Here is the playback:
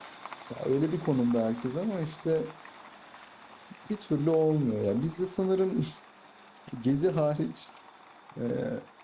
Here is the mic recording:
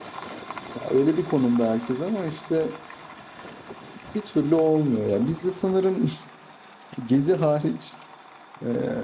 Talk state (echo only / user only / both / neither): echo only